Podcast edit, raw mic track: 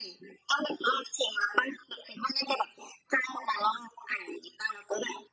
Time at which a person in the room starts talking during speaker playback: none

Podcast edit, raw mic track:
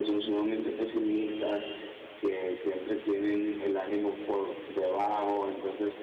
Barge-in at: none

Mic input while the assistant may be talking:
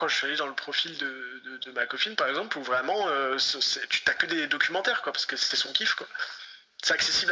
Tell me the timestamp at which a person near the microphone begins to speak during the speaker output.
none

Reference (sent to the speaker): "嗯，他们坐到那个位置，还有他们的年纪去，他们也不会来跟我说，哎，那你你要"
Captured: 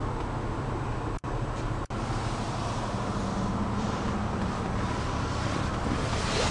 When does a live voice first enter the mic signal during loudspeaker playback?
none

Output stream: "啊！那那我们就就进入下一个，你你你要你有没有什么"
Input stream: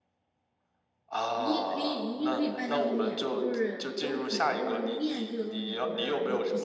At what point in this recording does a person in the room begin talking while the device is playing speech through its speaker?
1.3 s

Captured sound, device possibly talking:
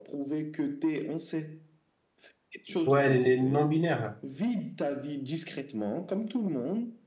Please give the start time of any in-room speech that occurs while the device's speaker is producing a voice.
2.8 s

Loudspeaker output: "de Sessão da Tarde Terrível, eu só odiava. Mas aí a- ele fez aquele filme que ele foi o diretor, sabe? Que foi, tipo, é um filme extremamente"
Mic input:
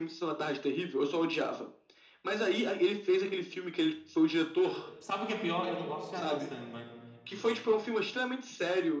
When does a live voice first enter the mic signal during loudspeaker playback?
4.6 s

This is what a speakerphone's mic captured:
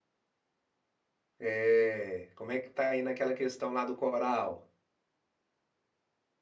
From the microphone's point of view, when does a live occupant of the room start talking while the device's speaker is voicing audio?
1.4 s

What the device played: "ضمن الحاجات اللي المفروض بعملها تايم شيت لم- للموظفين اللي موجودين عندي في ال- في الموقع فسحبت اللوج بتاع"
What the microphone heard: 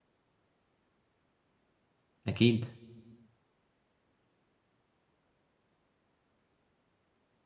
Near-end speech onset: 2.3 s

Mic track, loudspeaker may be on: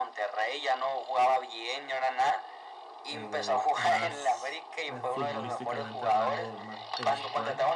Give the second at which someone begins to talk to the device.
3.1 s

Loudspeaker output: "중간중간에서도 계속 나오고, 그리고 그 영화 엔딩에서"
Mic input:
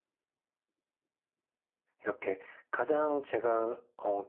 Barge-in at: 2.0 s

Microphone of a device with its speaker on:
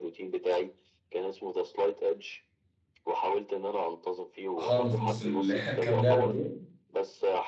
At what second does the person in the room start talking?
4.6 s

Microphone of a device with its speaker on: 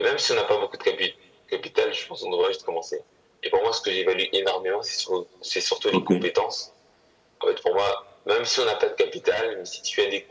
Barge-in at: 5.9 s

